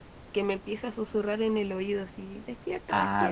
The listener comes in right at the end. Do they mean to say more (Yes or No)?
Yes